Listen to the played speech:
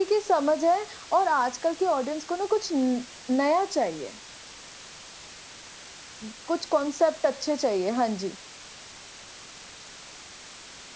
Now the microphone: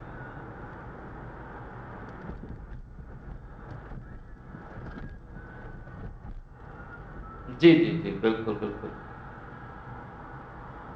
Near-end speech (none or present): present